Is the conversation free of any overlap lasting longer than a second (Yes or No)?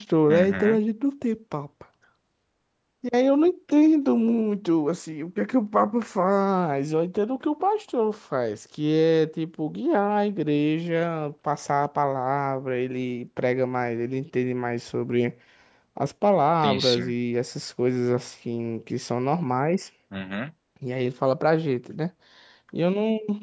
Yes